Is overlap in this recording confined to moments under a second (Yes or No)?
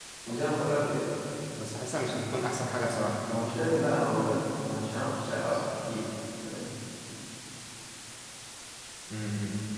Yes